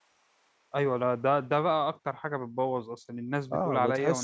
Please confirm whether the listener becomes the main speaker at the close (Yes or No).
Yes